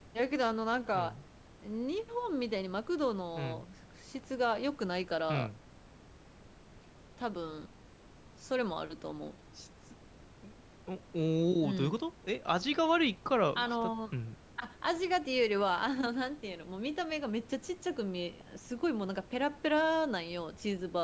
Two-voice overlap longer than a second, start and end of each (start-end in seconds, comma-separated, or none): none